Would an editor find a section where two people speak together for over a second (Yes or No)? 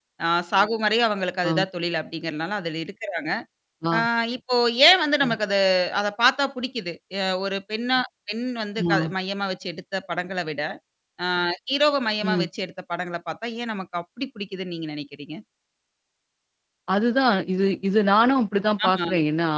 No